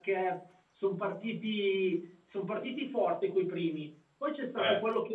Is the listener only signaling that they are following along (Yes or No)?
Yes